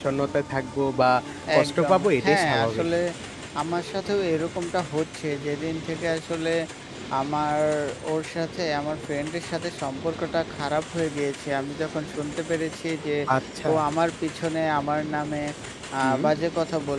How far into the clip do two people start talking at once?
2 s

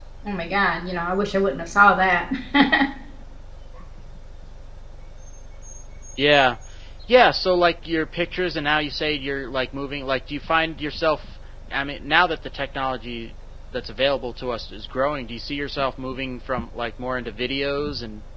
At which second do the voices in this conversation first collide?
none

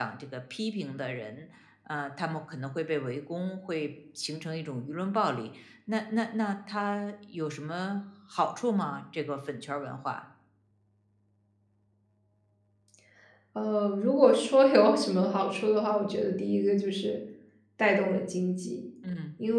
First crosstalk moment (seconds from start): none

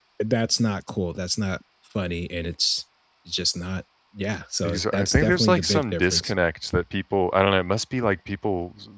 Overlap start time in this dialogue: 5 s

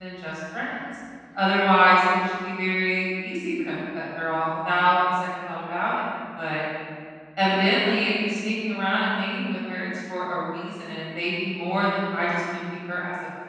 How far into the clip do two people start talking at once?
none

